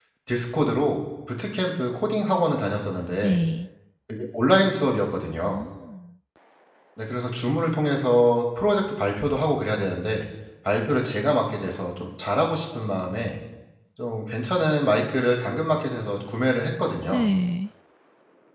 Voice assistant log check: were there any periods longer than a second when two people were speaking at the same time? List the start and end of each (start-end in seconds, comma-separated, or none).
none